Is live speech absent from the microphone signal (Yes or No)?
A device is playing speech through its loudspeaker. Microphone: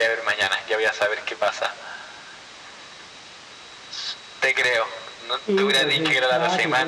No